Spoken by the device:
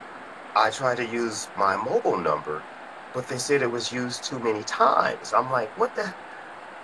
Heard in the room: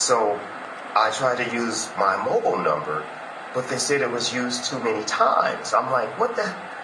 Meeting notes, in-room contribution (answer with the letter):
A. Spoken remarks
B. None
B